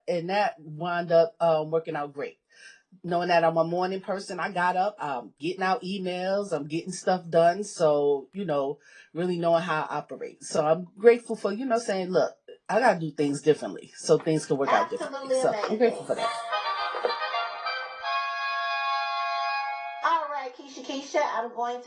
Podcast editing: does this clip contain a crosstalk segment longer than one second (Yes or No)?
Yes